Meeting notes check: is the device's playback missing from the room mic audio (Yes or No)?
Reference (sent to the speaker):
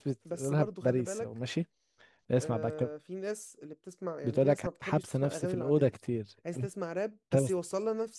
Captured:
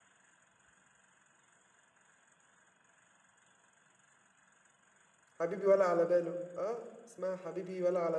Yes